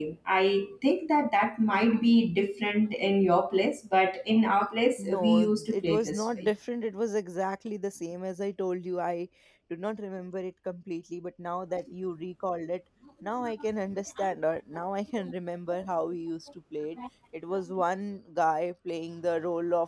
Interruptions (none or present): present